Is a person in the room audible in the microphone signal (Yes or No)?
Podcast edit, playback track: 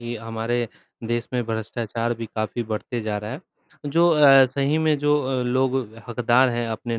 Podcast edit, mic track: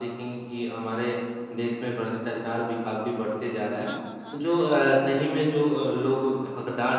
Yes